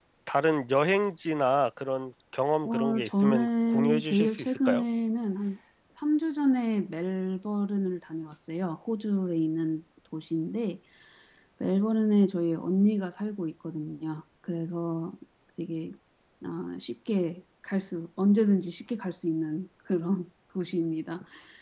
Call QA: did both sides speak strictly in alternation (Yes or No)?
No